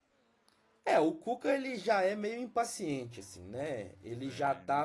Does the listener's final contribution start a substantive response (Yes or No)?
No